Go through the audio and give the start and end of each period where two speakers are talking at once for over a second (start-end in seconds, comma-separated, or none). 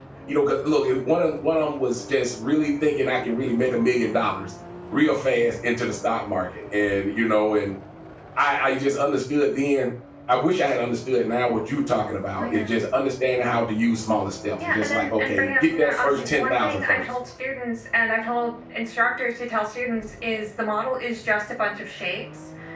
14.6-17.0